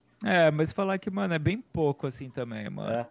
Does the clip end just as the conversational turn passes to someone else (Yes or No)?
No